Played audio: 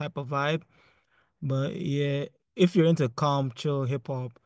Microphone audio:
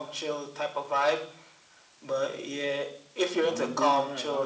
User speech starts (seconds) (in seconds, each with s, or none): 3.5 s